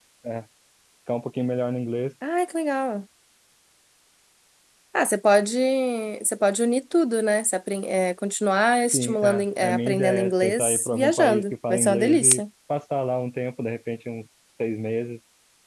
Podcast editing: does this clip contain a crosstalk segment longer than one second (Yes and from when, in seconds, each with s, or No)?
Yes, from 8.9 s